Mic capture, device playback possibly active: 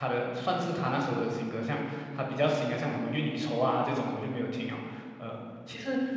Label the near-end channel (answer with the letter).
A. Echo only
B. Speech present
B